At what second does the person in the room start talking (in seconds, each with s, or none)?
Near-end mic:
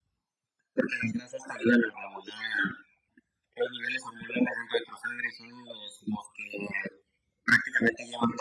none